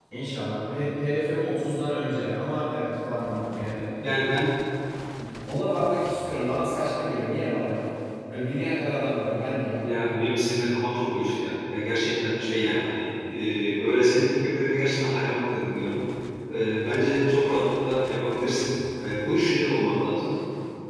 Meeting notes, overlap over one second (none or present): none